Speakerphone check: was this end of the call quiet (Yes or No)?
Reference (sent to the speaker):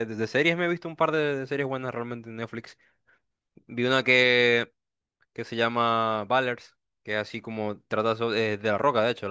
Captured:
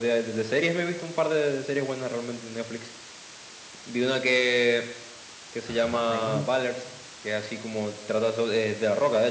No